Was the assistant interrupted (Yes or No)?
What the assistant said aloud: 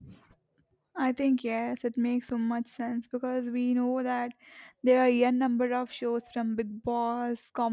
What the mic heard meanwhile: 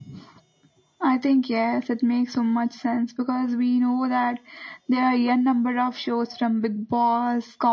No